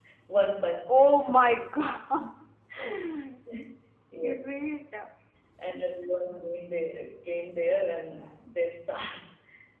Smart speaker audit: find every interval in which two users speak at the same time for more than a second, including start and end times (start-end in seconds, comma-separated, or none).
none